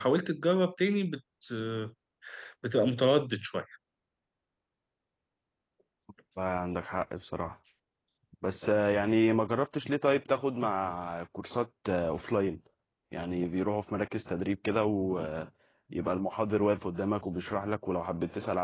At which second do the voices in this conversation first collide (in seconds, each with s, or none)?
none